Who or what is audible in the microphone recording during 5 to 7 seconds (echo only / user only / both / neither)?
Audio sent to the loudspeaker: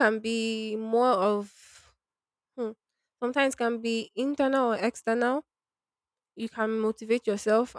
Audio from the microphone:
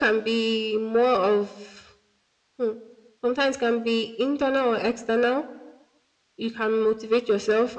echo only